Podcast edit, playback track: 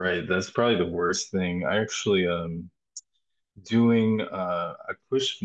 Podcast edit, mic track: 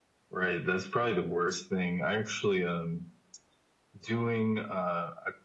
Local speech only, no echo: none

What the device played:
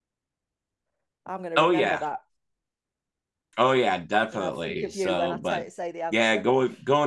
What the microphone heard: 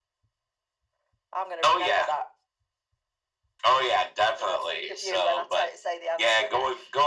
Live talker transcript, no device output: none

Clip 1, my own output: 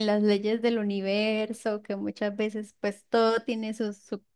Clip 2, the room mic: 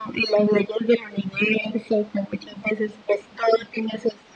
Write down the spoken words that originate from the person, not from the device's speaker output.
none

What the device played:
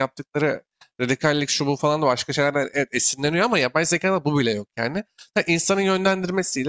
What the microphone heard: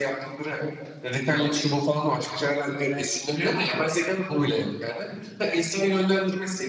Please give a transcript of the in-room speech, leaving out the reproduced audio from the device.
none

